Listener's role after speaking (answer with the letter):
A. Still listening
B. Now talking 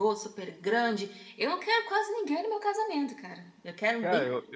B